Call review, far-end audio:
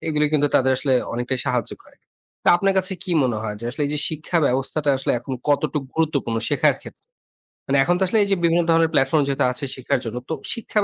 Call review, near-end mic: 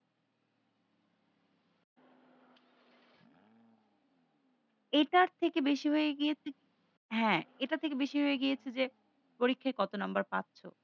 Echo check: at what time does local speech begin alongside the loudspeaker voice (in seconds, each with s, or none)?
5.0 s